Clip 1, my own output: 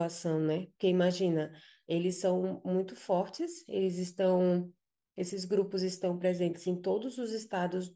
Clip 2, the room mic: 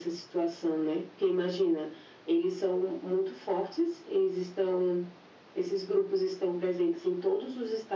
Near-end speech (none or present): none